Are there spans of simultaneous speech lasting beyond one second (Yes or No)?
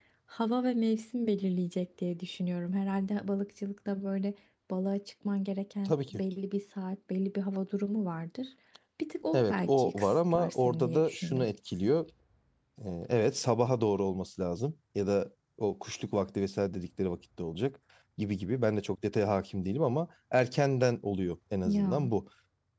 Yes